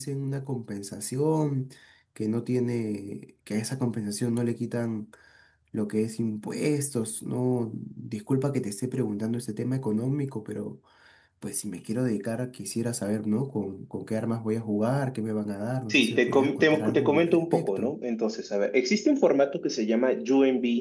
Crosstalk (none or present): present